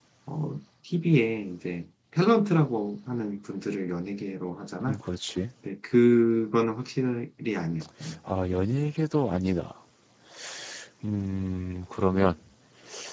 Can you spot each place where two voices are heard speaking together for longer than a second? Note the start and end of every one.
none

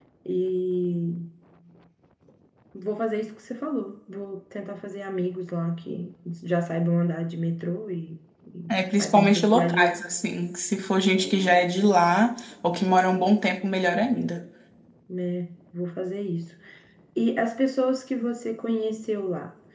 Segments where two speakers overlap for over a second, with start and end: 8.7-10.0

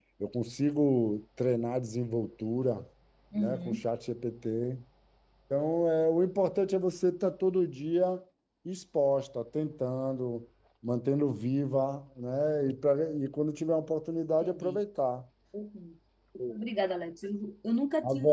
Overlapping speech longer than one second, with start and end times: none

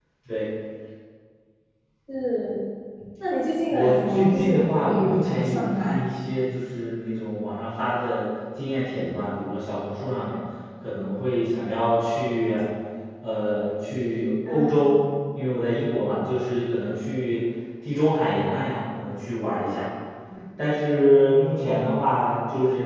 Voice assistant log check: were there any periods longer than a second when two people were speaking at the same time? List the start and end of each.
3.7-6.0

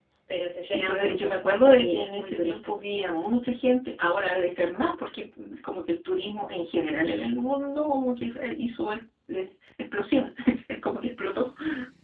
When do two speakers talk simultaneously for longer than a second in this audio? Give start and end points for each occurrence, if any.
0.7-2.8

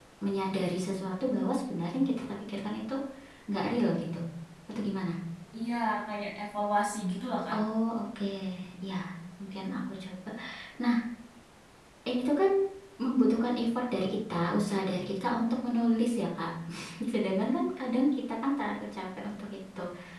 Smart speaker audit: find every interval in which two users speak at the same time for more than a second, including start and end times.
none

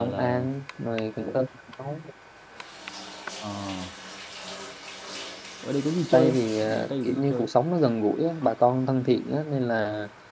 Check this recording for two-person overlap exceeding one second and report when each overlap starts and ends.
6.1-7.5

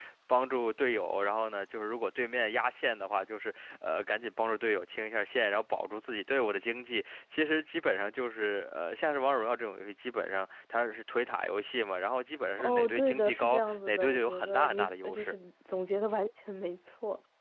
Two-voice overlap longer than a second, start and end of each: 12.6-15.4

